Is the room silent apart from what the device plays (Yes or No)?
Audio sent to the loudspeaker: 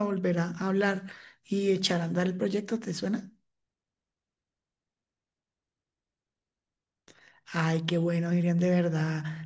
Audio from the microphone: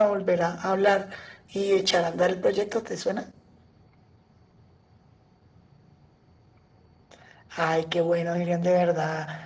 Yes